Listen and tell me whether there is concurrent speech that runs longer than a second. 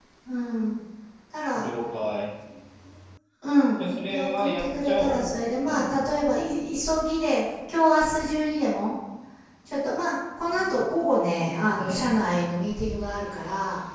Yes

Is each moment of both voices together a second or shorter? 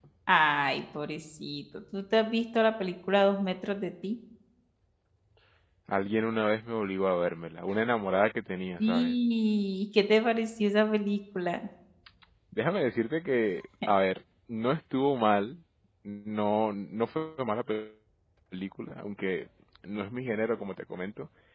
Yes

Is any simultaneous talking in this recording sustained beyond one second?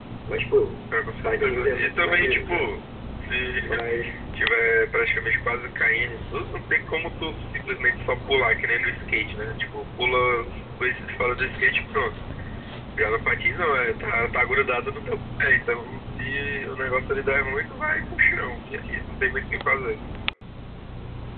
Yes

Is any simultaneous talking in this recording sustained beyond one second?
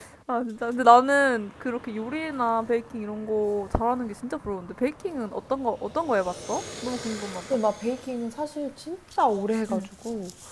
No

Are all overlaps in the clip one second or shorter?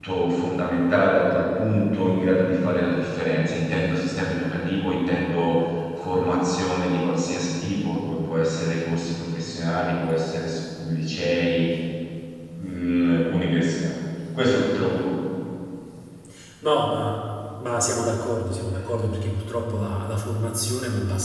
Yes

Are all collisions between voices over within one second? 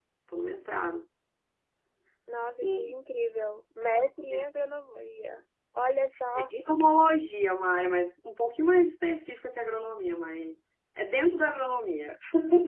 Yes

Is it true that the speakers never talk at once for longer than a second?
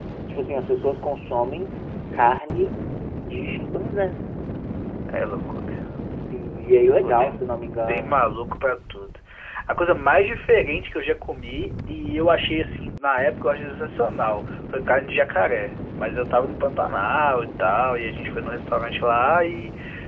Yes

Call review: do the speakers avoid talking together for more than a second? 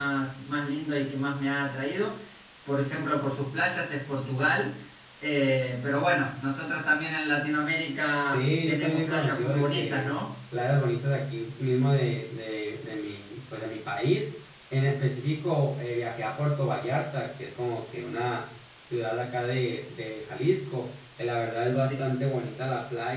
No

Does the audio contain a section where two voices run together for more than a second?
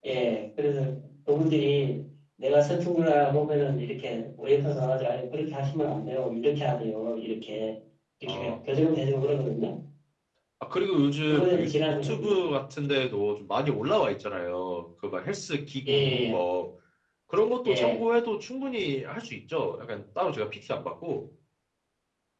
Yes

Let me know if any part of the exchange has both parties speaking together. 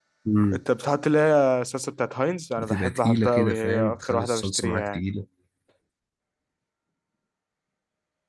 Yes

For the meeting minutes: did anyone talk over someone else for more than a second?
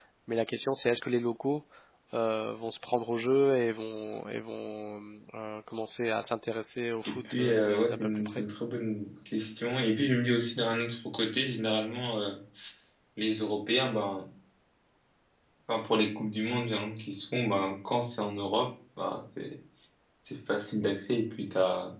Yes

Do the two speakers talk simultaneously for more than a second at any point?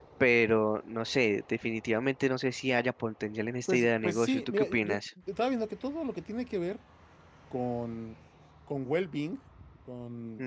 Yes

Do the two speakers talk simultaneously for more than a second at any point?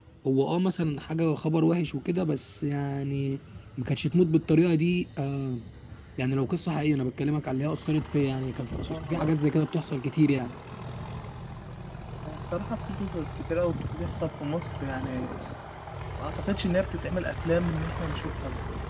No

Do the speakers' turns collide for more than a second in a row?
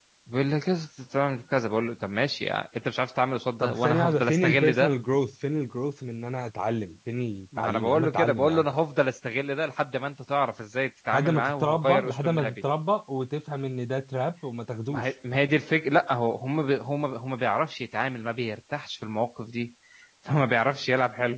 Yes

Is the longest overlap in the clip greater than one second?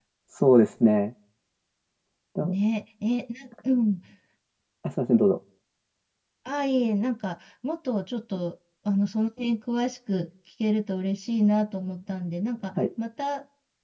No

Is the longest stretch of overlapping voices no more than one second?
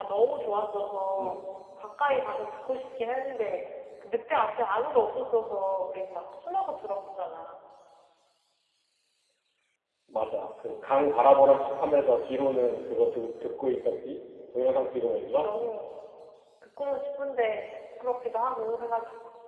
Yes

